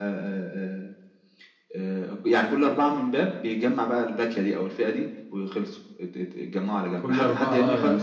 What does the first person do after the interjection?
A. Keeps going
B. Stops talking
B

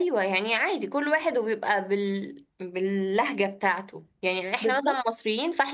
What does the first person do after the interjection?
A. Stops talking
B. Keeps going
B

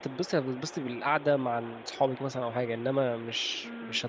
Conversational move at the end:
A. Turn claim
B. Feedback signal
A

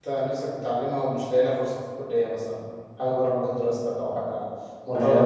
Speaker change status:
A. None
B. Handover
B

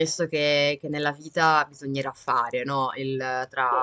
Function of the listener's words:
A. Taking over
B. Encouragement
B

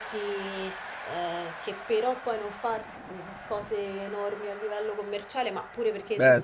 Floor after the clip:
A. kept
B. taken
B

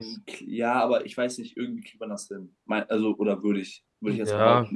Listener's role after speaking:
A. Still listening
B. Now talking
B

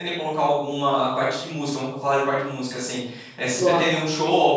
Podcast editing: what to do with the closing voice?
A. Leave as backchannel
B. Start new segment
A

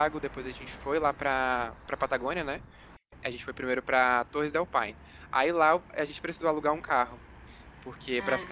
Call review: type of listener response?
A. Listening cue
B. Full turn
A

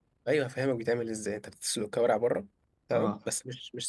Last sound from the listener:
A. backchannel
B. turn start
A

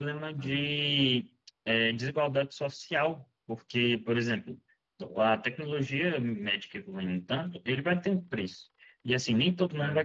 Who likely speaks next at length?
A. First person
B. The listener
A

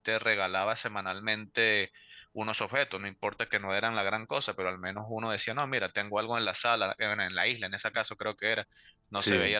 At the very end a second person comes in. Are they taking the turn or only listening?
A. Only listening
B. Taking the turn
A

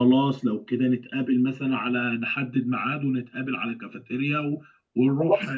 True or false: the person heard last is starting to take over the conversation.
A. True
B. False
A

